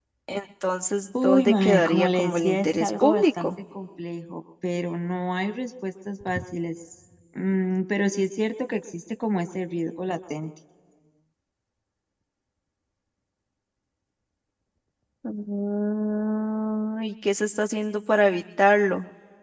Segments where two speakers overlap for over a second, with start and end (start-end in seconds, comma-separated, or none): 1.2-3.5